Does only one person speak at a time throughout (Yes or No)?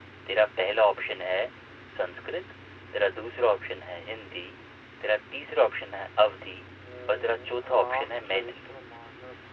No